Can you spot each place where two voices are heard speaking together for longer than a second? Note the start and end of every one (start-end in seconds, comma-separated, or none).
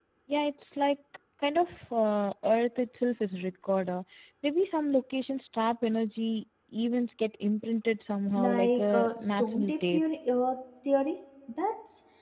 8.4-10.0